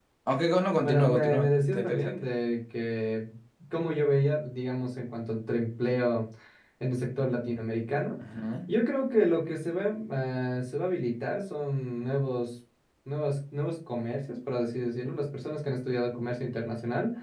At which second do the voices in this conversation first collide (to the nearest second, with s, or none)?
1 s